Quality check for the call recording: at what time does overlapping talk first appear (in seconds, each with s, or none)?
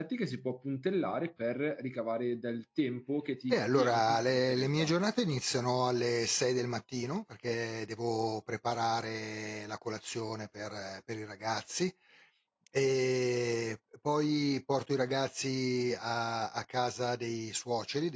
3.5 s